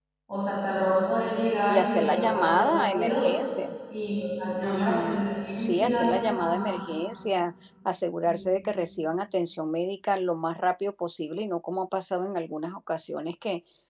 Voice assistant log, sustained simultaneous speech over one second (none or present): present